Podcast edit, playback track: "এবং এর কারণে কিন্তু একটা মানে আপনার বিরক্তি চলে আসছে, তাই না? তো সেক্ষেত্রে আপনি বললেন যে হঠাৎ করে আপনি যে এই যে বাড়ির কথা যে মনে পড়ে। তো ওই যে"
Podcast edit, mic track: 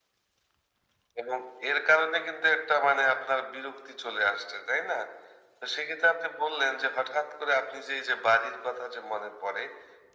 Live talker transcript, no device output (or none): none